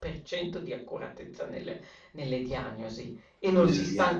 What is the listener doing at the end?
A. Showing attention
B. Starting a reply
A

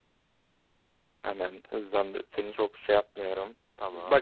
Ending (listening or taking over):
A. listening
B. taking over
A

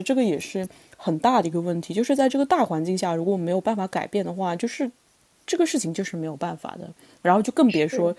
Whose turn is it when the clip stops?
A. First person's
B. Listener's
A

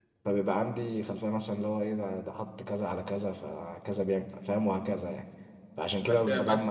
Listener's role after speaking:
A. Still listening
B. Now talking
B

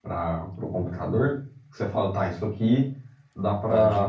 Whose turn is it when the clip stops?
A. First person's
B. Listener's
A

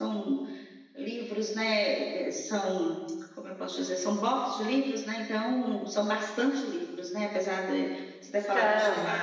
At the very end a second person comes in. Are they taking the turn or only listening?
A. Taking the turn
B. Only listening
B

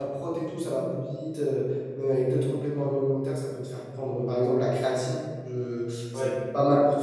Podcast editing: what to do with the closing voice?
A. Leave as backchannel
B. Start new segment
A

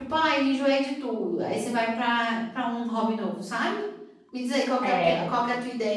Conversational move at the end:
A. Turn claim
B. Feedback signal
B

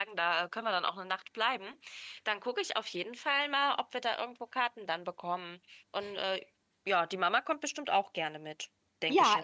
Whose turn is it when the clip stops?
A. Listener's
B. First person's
A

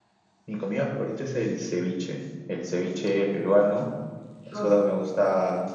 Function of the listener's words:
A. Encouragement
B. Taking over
A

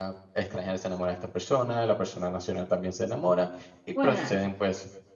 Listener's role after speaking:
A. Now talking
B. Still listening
B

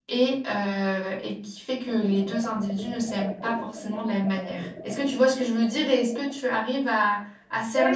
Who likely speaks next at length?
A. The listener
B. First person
A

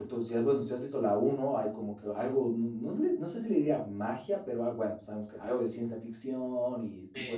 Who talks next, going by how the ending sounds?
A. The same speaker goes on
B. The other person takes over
B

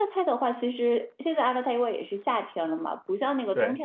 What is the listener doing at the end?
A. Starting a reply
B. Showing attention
B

